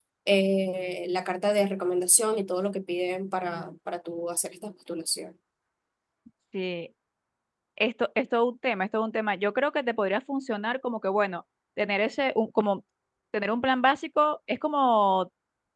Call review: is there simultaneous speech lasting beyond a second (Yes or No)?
No